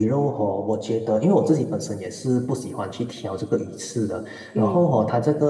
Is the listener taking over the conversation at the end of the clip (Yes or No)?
No